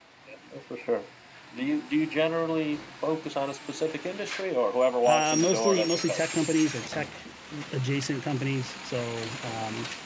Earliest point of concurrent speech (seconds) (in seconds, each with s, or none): 5.0 s